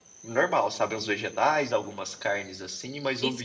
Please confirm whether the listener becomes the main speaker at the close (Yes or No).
Yes